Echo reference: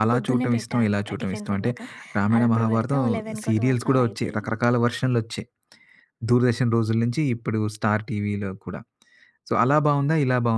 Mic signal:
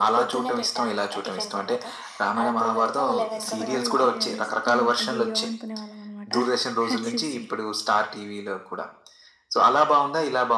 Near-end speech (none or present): present